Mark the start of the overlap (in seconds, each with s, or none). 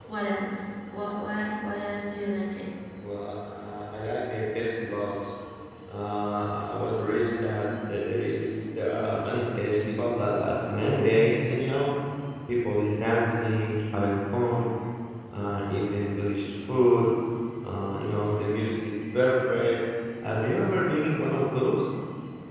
none